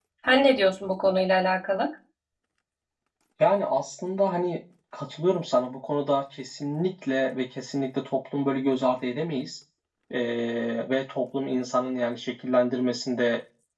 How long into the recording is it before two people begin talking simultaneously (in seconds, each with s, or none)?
none